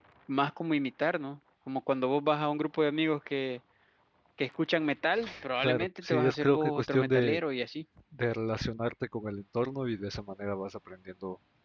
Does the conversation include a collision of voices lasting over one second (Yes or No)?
Yes